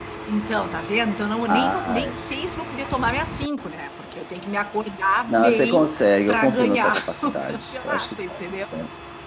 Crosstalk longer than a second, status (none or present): present